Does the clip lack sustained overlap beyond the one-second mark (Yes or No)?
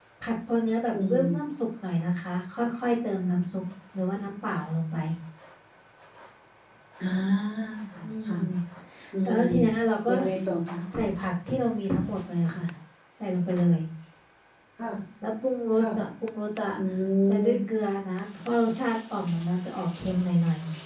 Yes